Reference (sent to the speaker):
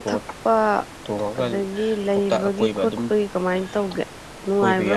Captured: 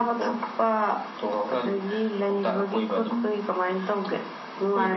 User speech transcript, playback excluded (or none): none